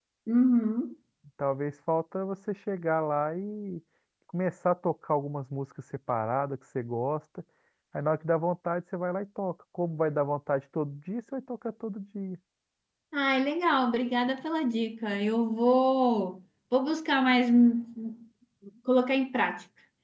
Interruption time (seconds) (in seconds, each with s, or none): none